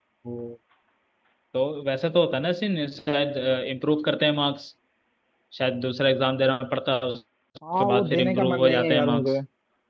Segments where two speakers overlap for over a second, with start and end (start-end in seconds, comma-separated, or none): 7.7-9.4